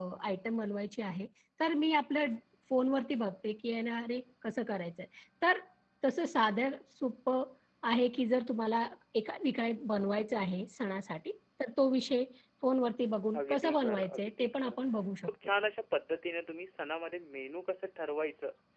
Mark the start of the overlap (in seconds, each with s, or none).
13.4 s